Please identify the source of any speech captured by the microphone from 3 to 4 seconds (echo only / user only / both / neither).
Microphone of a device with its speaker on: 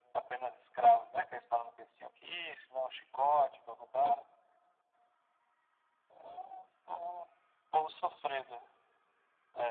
echo only